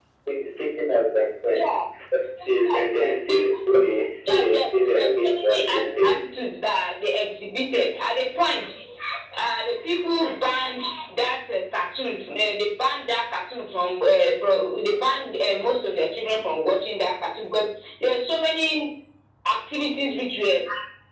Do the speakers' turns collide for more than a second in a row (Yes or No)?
Yes